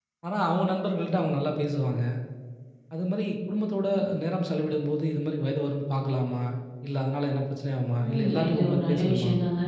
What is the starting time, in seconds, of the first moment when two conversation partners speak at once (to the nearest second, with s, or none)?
8 s